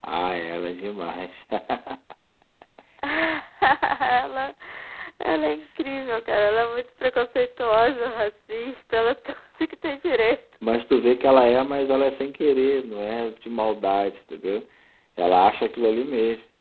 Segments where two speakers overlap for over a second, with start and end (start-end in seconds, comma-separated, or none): none